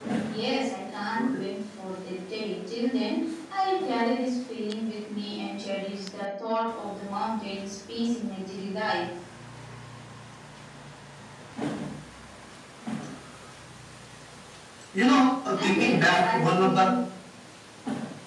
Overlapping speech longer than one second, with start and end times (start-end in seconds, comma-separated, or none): 15.5-16.9